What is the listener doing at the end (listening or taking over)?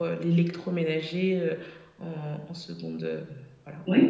taking over